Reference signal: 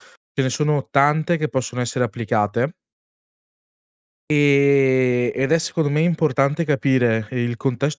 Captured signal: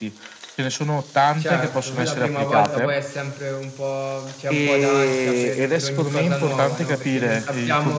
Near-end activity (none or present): present